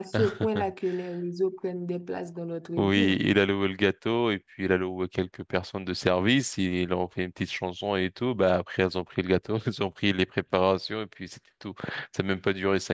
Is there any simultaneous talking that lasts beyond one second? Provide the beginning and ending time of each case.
none

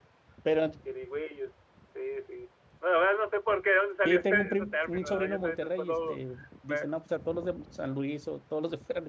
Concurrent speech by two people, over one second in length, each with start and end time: 4.0-6.2

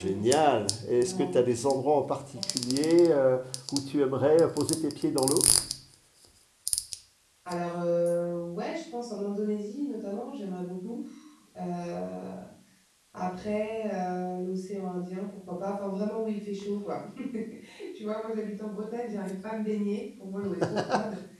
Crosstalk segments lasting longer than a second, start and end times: none

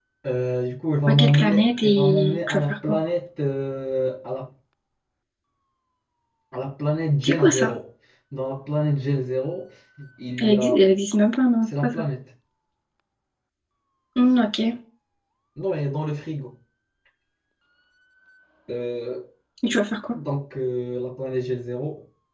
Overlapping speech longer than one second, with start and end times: 1.1-3.0

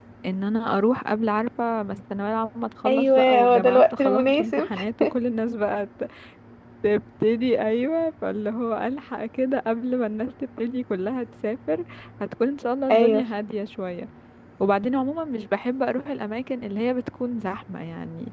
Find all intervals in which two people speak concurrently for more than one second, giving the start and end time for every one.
2.9-4.7

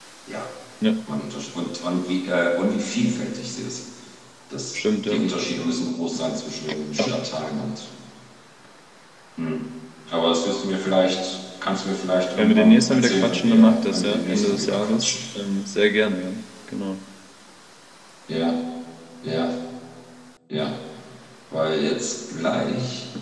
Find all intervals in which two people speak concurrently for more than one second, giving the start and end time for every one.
12.4-15.2

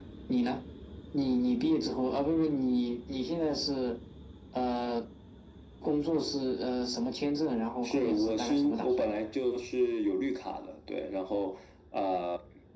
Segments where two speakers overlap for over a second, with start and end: 7.8-9.1

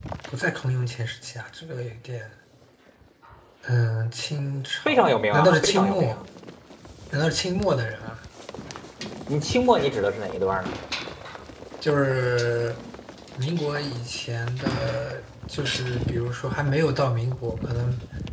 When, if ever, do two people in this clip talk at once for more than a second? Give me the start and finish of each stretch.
4.8-6.2

